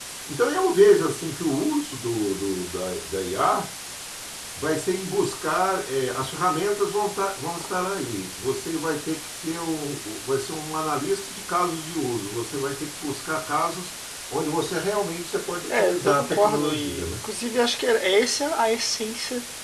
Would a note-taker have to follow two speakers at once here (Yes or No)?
Yes